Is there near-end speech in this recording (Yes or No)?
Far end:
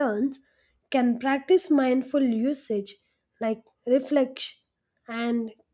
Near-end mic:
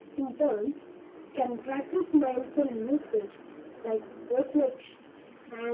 No